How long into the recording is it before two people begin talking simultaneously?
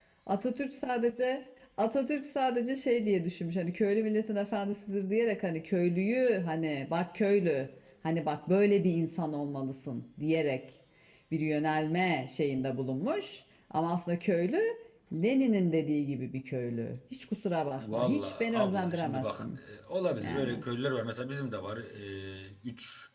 17.8 s

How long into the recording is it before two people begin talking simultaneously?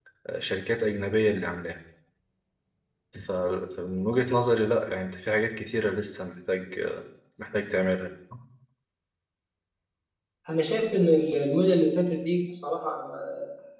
none

